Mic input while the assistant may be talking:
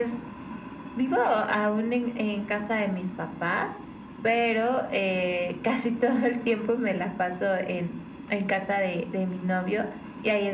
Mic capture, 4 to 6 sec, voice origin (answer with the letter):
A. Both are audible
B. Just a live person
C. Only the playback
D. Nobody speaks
C